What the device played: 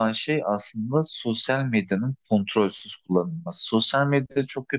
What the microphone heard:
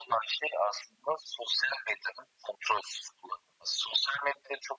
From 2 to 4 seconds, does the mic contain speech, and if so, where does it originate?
echo only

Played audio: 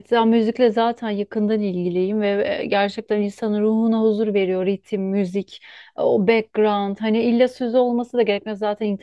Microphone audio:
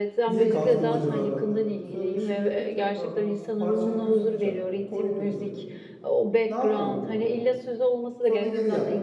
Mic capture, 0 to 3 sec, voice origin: both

